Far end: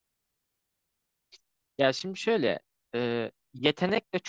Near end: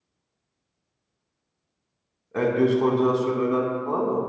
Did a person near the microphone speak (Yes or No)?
Yes